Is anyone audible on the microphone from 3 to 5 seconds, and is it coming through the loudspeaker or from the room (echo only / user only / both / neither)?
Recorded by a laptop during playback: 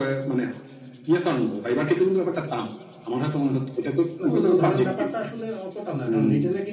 both